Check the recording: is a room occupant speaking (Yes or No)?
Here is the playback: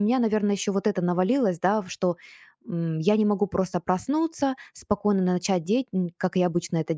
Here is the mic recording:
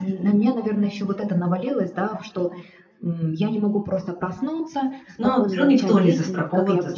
Yes